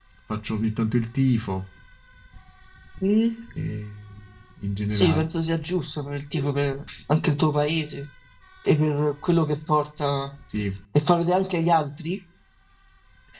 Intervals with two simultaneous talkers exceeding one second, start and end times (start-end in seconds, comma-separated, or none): none